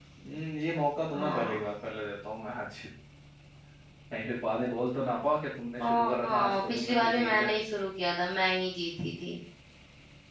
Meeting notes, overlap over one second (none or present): present